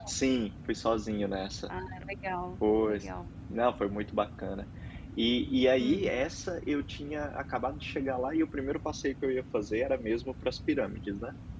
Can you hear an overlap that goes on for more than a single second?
No

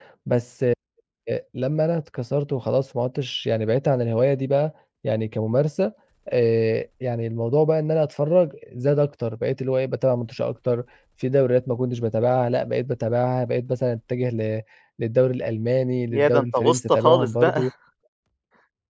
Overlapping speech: Yes, from 16.1 s

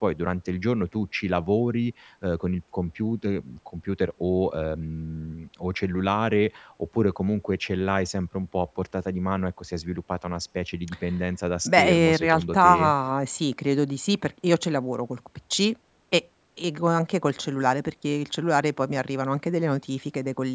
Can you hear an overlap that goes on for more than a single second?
Yes, from 11.7 s

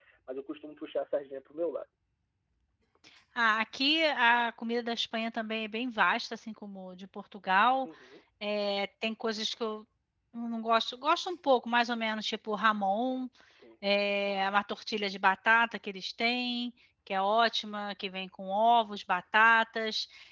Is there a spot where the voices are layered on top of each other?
No

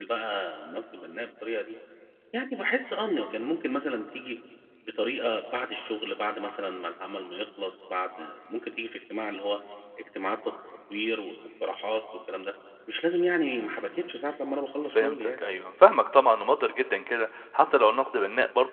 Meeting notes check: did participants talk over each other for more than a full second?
No

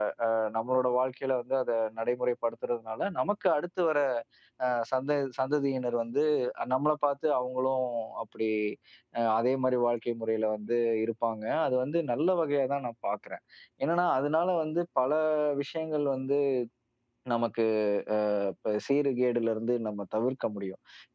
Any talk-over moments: No

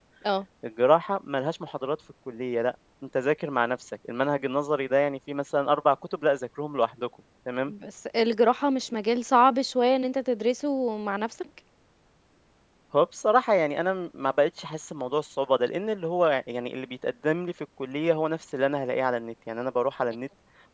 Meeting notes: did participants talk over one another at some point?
No

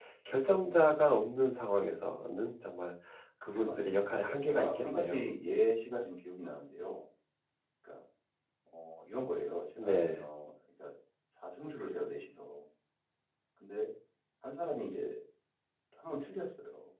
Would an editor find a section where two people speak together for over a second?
Yes, from 3.5 s

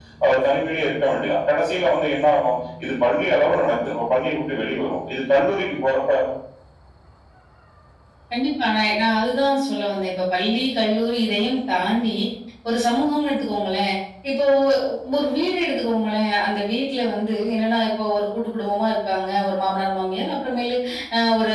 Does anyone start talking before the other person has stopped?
No

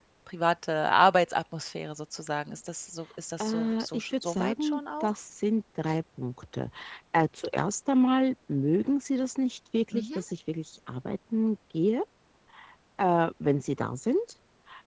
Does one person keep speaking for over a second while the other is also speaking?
Yes, from 3.4 s

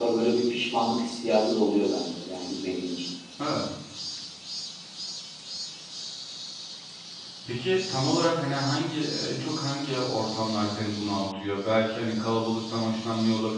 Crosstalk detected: No

